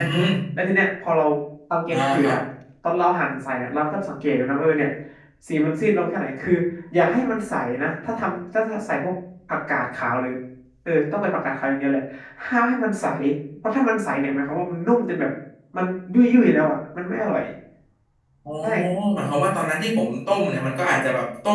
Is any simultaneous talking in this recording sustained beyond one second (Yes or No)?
No